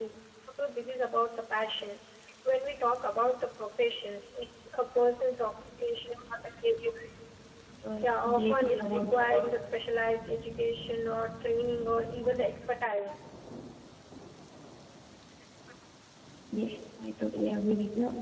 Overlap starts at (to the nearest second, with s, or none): 8 s